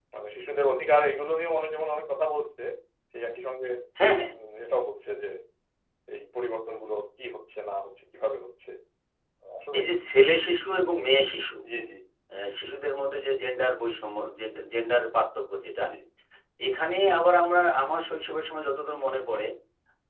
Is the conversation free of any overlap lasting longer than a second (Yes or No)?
Yes